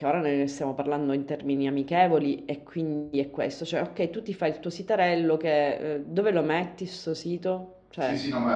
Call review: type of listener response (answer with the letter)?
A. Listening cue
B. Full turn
B